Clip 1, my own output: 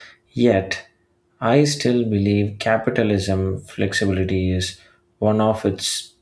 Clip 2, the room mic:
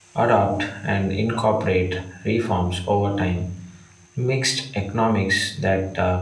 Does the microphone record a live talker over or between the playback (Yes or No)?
Yes